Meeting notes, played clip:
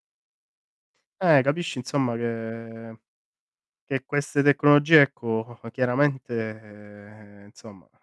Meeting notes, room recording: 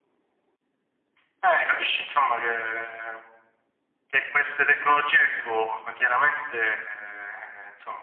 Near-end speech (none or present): none